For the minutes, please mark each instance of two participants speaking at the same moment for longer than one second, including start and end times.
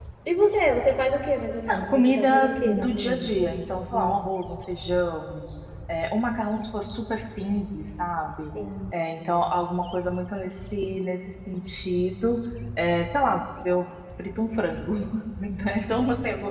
1.9-3.3

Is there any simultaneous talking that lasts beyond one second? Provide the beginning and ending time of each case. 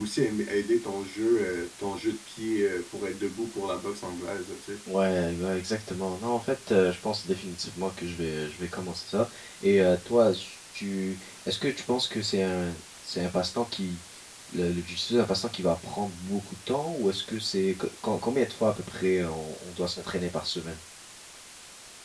none

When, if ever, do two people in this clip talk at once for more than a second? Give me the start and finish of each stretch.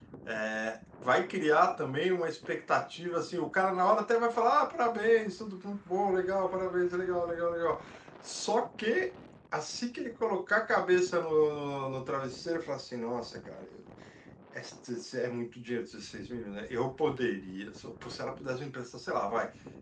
none

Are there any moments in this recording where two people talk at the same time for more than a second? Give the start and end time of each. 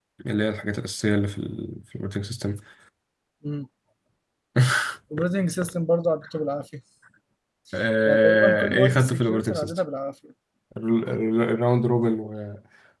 8.1-9.8

